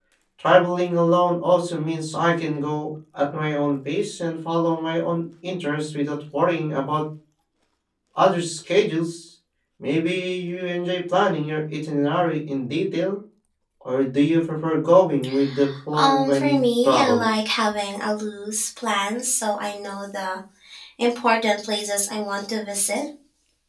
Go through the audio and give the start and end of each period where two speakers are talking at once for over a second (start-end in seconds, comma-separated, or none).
16.0-17.3